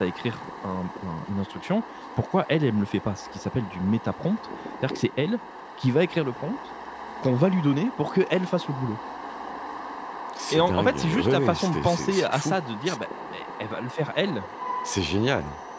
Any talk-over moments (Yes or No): Yes